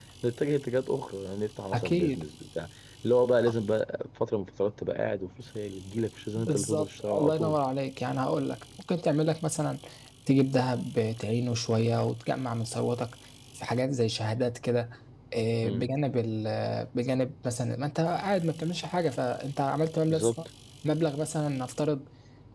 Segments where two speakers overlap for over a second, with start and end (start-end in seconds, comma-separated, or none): 6.4-7.6